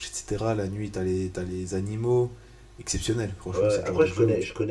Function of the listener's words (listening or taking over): taking over